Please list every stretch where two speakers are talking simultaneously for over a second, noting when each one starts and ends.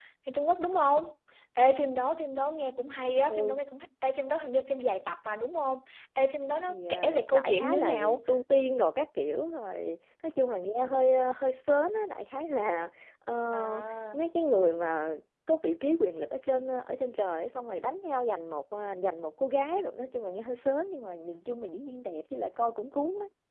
6.7-8.2

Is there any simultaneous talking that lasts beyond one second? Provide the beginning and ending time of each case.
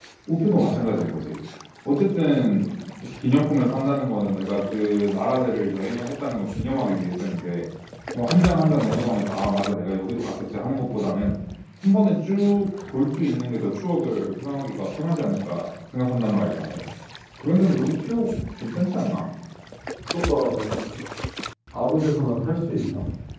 none

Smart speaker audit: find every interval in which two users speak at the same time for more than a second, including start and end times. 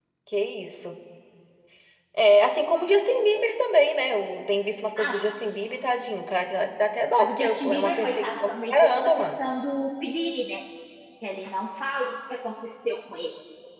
7.2-9.3

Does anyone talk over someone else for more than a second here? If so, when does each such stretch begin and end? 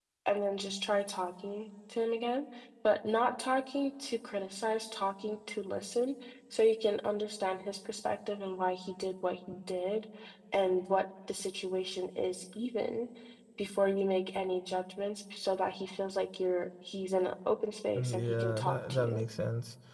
18.0-19.3

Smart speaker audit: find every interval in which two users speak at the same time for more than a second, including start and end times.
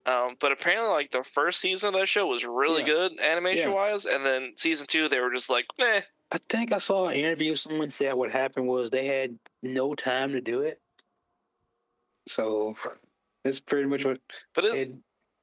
none

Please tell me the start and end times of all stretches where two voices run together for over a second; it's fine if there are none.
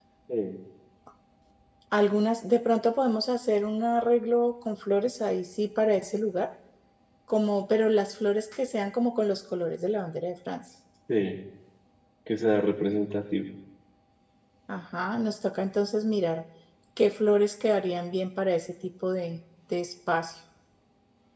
none

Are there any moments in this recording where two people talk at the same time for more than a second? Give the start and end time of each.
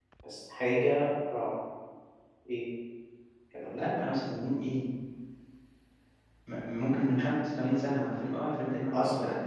none

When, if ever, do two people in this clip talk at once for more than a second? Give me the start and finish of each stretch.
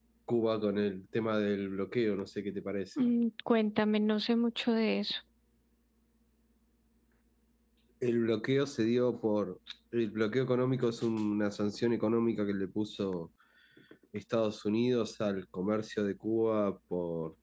none

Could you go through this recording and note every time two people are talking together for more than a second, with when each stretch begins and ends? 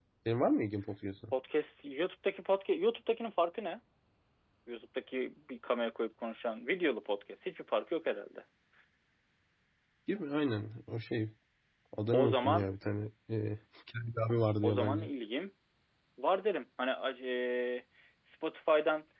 none

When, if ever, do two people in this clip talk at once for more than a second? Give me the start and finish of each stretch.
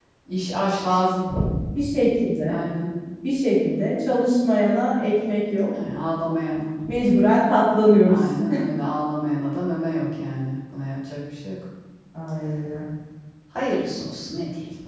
none

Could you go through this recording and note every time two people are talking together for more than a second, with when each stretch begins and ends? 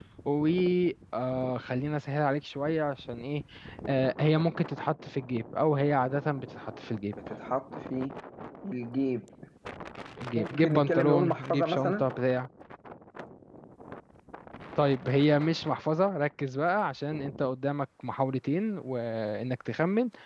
10.4-12.0

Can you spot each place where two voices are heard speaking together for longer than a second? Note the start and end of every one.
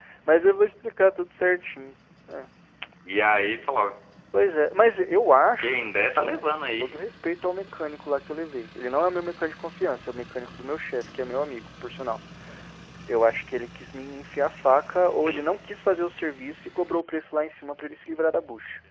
5.6-6.8

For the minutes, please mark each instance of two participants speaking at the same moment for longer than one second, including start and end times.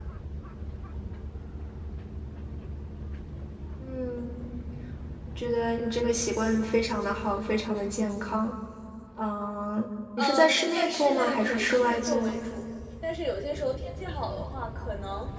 10.2-12.3

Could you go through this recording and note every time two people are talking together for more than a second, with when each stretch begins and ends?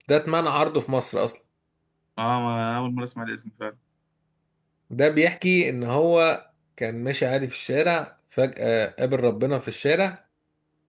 none

